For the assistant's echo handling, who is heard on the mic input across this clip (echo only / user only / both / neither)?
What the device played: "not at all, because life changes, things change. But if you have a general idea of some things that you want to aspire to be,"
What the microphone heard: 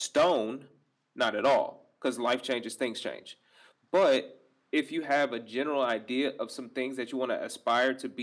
echo only